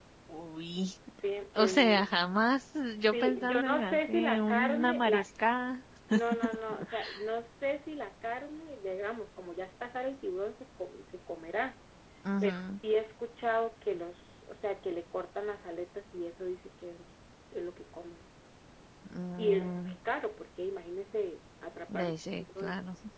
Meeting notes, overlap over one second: present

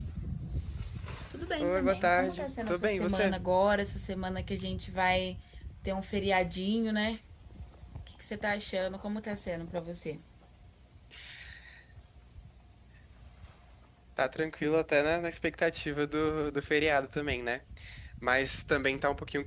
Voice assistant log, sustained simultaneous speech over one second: present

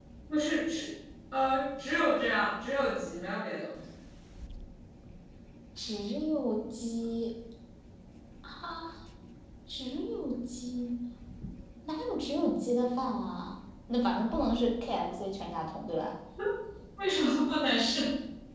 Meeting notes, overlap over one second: none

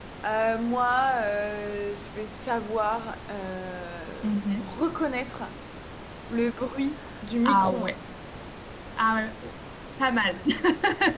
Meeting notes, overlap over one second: none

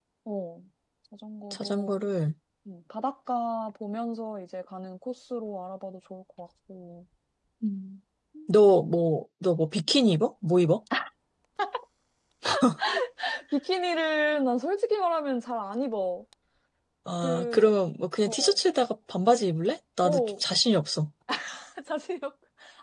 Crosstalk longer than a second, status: none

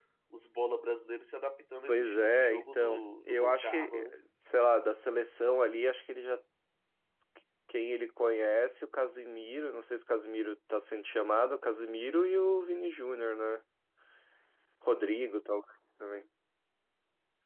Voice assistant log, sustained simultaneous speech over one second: present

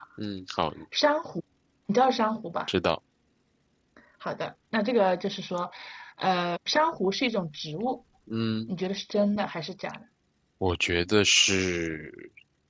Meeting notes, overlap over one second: none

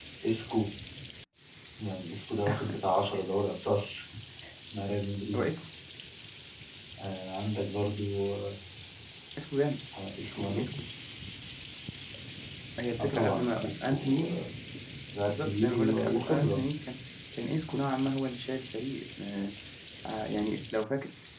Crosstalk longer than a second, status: present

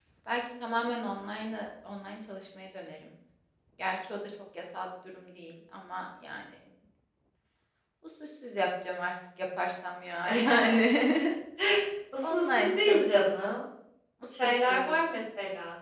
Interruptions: present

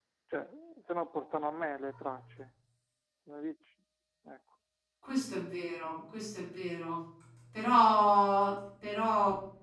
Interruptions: none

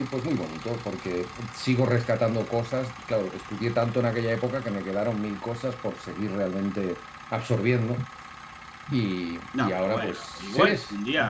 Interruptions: present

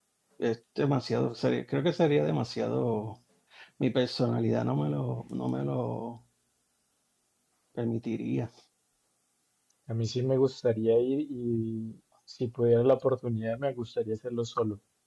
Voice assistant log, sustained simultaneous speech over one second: none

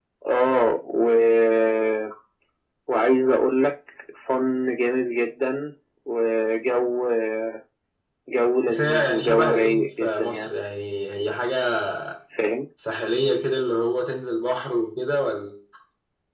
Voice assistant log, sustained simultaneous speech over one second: present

